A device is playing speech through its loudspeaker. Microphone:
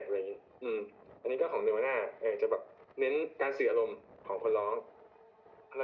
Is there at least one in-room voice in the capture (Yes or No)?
No